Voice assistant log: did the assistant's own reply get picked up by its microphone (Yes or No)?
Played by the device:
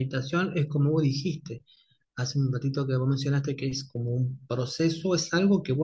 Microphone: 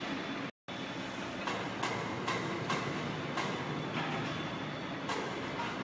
No